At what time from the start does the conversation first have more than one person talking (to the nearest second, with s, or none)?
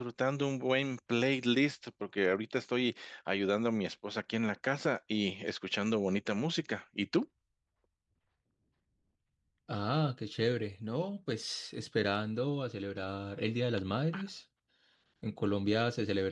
none